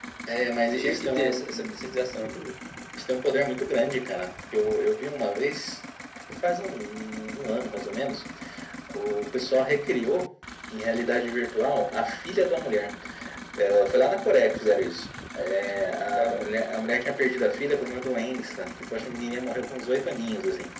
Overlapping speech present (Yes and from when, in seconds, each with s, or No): Yes, from 0.8 s